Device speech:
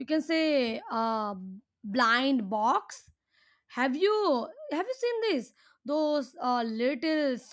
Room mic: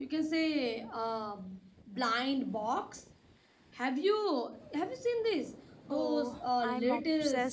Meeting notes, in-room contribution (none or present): present